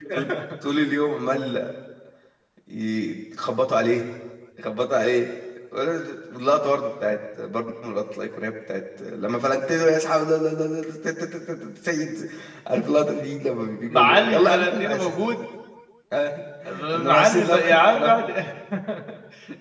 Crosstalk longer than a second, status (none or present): present